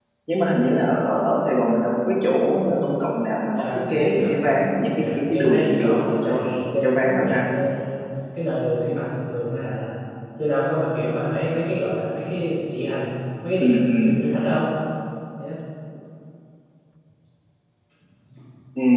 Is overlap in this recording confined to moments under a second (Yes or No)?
No